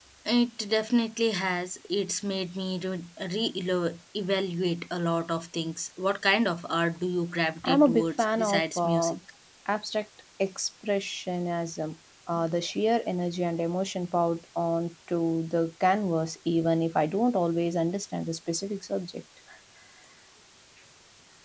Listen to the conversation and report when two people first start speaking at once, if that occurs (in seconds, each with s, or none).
7.6 s